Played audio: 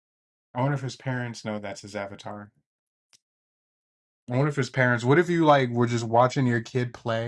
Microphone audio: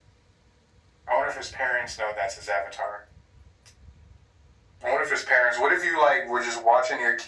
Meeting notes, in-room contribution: none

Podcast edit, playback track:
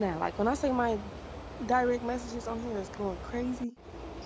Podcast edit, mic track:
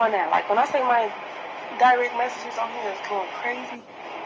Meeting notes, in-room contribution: none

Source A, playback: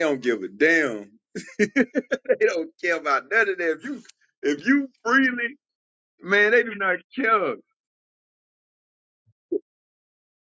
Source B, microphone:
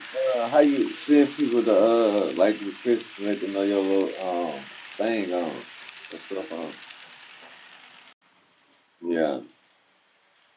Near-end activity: present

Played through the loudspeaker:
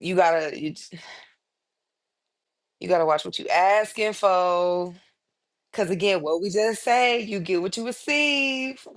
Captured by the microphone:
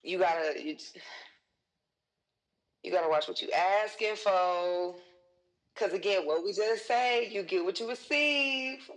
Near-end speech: none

